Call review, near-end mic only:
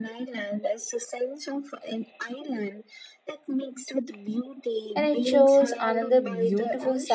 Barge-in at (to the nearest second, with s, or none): 5 s